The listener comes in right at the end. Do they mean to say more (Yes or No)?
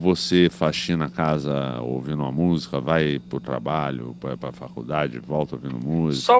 Yes